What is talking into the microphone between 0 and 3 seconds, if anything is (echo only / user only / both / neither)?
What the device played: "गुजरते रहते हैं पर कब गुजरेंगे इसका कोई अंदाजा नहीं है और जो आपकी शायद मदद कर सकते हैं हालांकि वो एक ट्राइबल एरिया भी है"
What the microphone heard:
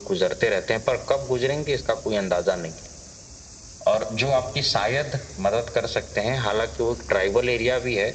echo only